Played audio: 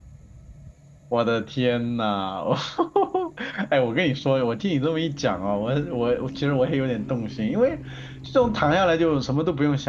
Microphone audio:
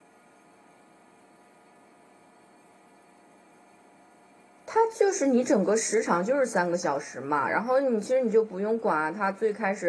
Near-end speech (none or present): present